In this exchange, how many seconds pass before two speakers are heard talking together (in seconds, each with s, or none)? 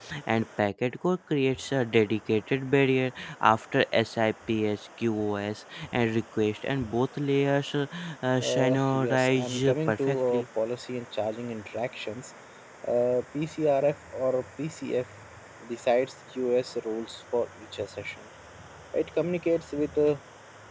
8.4 s